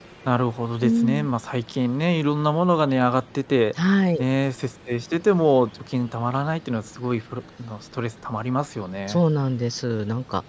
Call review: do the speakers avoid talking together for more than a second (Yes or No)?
Yes